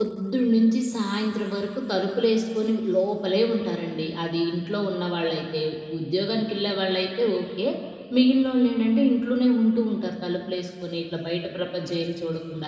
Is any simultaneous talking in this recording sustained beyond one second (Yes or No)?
No